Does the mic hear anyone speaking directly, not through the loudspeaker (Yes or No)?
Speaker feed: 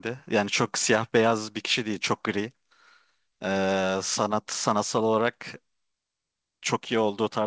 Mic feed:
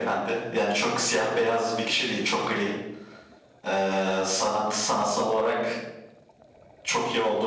No